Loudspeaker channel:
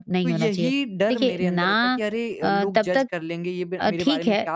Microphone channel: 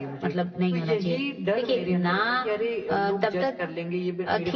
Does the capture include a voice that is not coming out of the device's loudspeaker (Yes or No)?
No